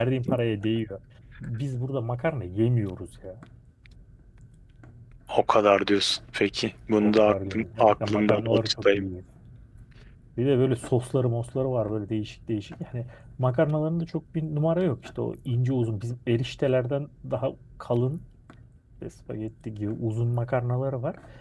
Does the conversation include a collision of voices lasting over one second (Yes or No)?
Yes